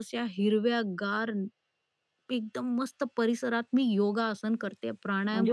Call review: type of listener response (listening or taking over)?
taking over